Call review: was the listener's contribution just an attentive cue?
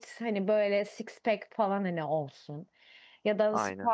Yes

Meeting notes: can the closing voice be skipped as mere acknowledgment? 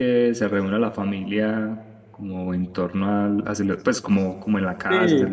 No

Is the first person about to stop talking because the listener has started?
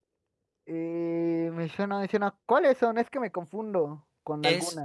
Yes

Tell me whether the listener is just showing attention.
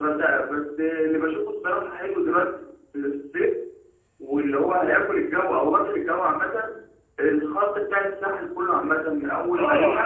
No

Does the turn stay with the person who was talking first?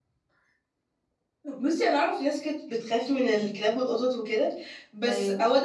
Yes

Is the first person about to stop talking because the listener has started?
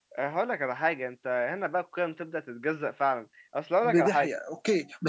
Yes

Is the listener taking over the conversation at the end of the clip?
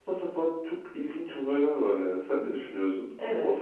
Yes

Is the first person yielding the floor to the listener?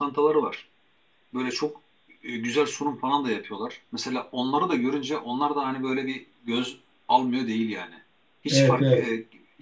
No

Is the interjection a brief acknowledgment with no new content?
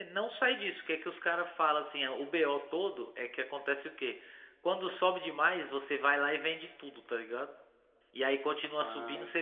Yes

